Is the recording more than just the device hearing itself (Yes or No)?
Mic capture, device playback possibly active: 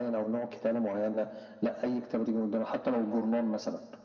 No